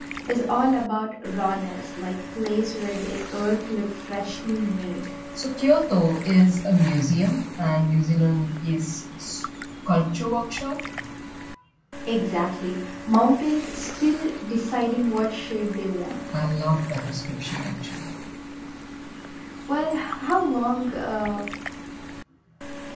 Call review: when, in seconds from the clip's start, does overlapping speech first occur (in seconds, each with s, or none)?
none